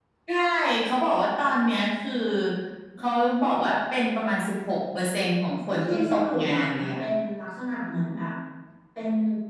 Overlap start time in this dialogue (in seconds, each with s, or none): 5.8 s